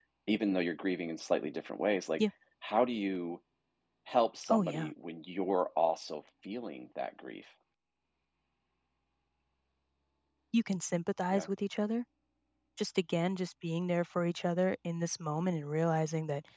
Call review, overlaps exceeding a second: none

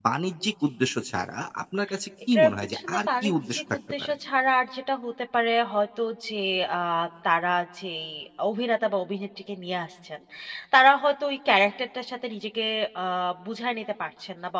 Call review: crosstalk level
present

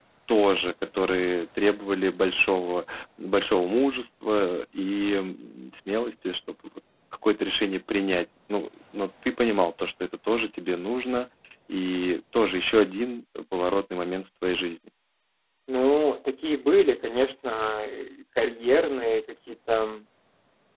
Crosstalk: none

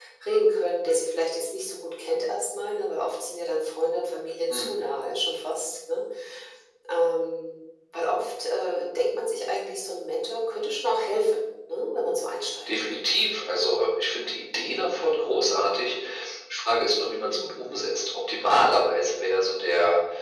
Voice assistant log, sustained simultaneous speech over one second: none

